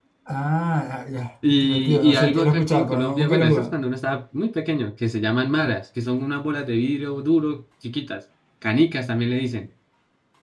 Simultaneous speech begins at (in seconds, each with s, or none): 1.4 s